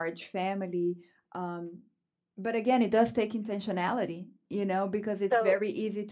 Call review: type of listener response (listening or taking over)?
listening